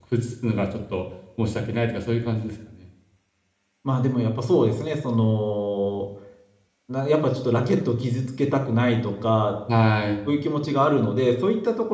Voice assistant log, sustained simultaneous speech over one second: none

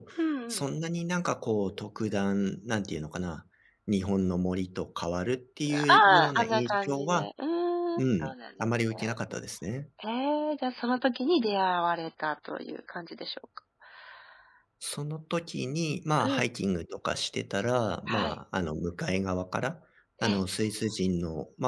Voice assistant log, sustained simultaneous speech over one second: present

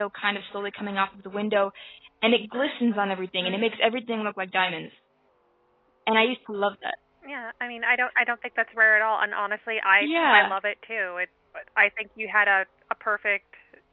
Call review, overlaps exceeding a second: none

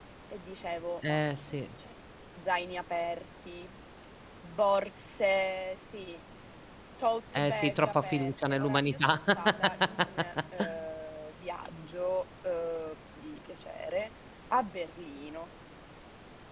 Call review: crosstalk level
present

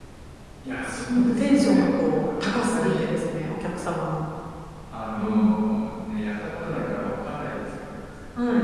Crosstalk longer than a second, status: present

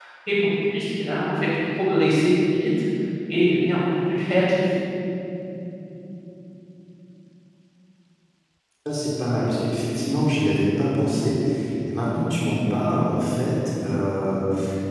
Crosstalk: none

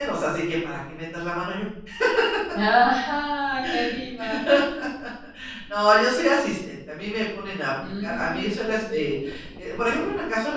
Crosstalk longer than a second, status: present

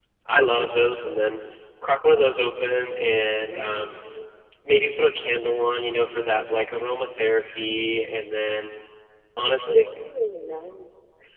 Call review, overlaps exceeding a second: none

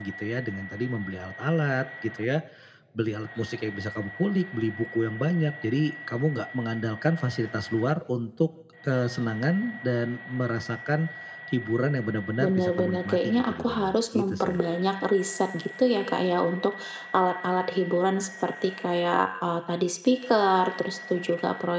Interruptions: present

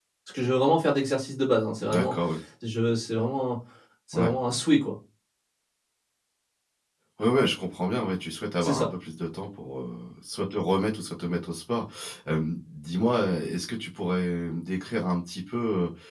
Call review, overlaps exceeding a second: none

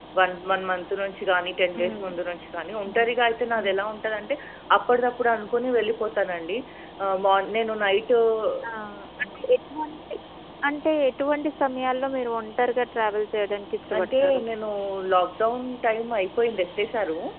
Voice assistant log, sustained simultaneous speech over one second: none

